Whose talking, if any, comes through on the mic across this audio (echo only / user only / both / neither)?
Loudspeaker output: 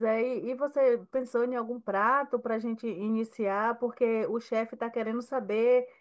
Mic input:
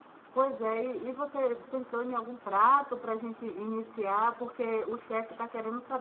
echo only